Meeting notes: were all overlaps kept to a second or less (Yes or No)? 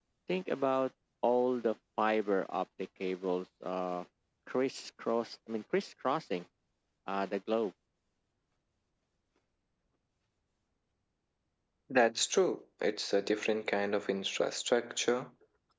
Yes